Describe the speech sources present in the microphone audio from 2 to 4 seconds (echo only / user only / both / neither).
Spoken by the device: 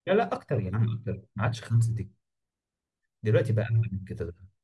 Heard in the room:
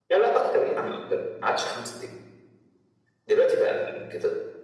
echo only